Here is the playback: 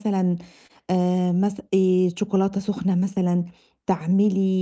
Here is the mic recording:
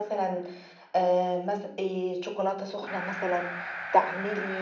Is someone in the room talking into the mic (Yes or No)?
No